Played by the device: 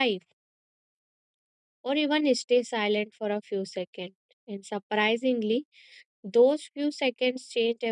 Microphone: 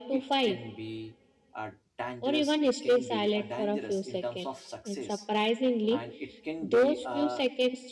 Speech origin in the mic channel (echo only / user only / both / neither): both